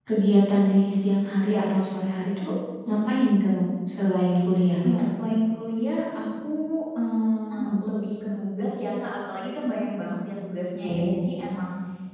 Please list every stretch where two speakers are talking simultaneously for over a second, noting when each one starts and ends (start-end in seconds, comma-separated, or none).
none